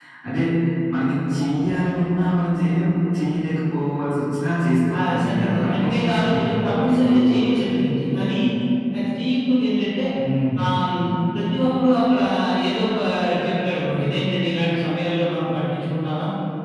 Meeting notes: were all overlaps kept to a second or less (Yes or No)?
No